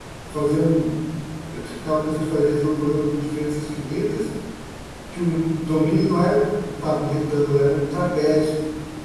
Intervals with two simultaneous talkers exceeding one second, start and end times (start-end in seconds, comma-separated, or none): none